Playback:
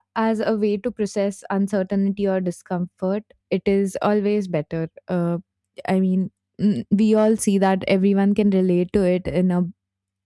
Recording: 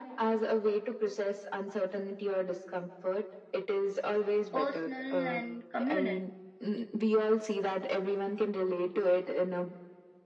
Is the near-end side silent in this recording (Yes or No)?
No